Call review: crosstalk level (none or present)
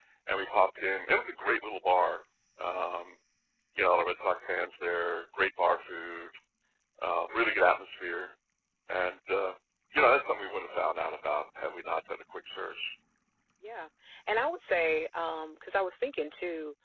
none